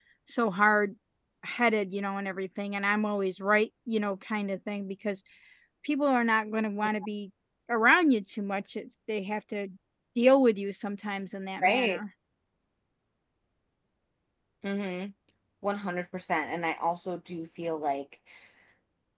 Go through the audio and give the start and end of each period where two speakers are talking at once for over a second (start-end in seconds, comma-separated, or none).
none